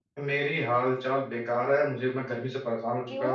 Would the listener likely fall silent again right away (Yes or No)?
Yes